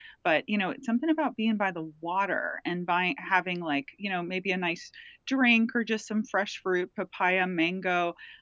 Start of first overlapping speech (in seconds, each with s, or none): none